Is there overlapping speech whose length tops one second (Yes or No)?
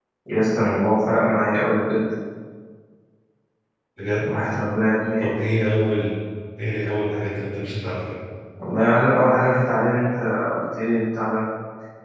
No